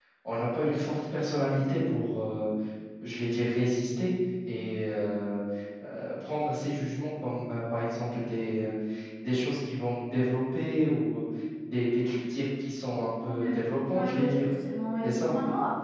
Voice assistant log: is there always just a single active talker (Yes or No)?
No